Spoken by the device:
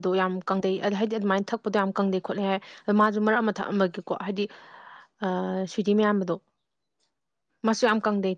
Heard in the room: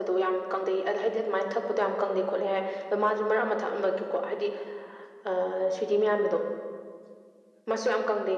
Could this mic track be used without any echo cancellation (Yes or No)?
No